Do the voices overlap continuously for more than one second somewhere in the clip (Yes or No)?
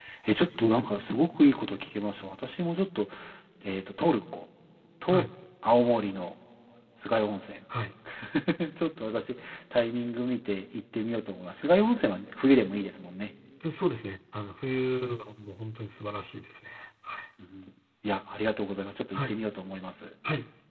No